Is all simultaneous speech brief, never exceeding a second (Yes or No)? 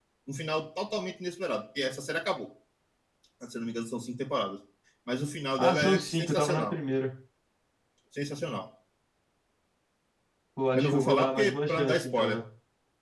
No